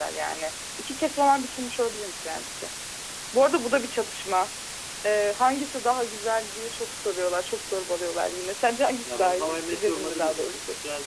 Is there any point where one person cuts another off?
Yes, from 9.1 s

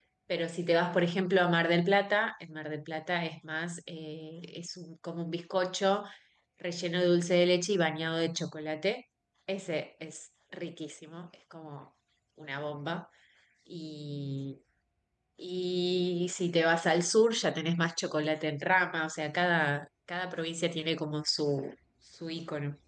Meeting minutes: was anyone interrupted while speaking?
No

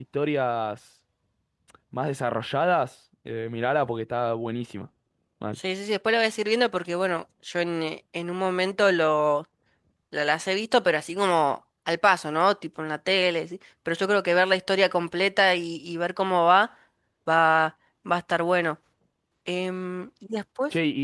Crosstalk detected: No

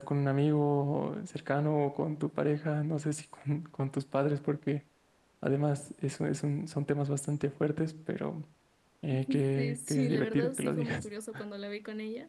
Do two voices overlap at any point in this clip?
Yes, from 9.6 s

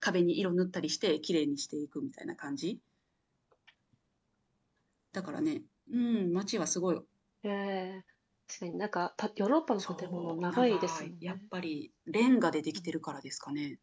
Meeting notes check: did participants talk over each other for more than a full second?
Yes, from 9.8 s

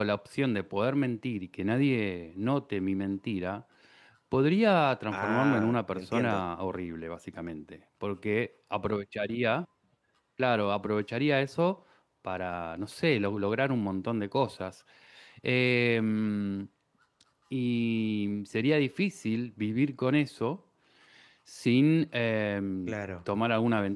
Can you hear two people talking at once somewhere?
Yes, from 5.1 s

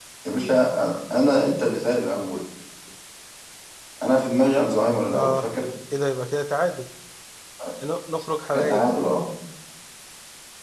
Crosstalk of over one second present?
No

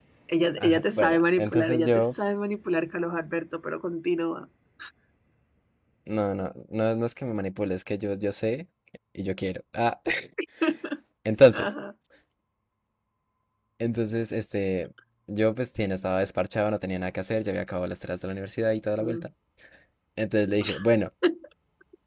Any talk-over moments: Yes, from 0.6 s

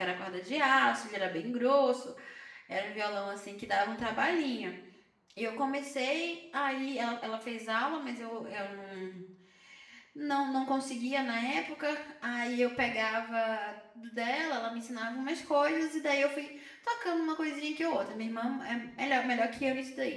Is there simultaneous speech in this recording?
No

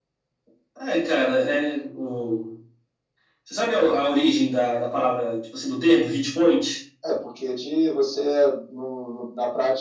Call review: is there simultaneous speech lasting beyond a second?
No

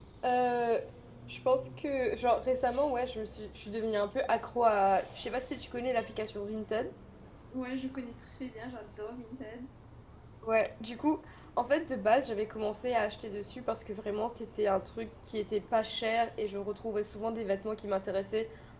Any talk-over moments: No

